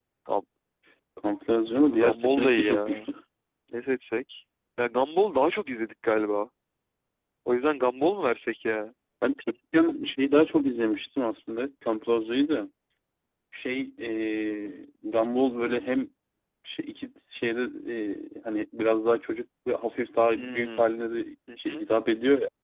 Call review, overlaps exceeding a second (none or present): present